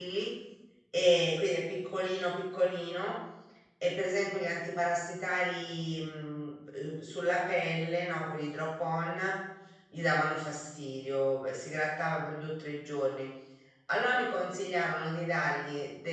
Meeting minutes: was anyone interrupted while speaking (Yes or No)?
No